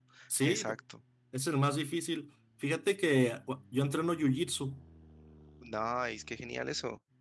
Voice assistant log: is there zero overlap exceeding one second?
Yes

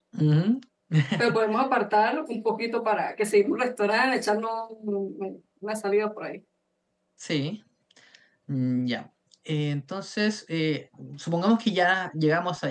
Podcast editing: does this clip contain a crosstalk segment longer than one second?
No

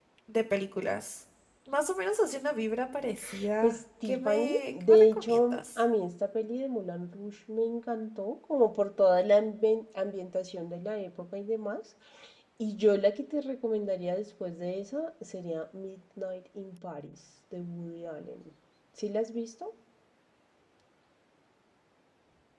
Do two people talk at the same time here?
Yes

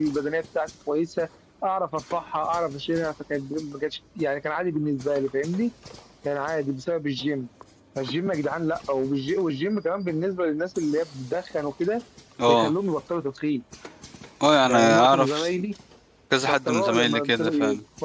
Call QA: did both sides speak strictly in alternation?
No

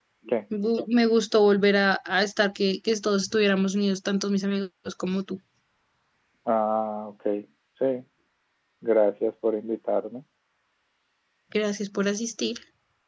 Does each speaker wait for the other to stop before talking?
Yes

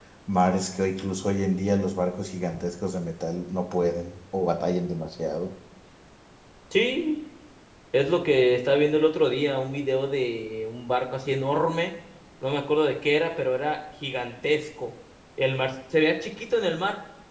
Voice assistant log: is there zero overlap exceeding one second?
Yes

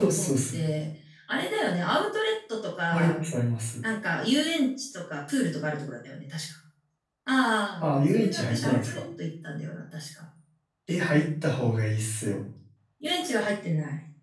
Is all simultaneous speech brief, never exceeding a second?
No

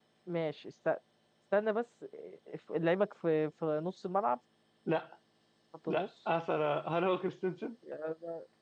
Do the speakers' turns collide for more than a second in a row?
No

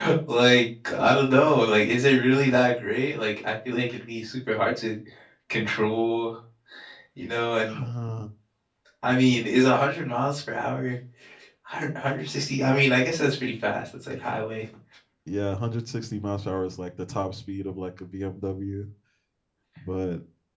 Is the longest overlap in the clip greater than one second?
No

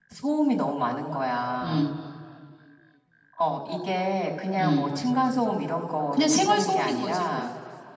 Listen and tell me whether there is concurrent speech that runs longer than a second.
Yes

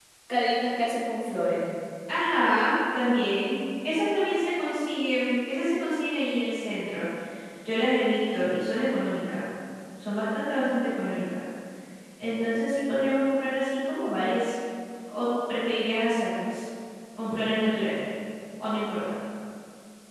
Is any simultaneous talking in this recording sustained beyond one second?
No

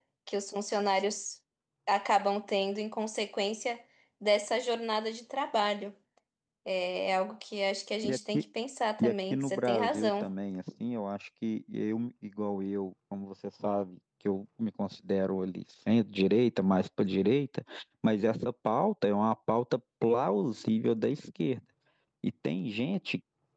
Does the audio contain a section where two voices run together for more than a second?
Yes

